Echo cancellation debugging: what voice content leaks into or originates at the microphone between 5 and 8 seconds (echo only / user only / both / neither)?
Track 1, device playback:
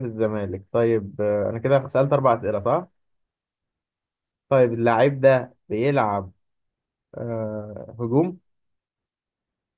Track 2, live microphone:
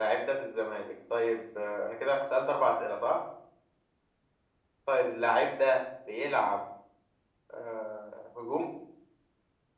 echo only